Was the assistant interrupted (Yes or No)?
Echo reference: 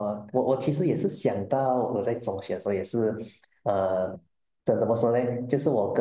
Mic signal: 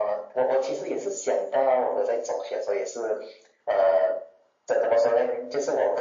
No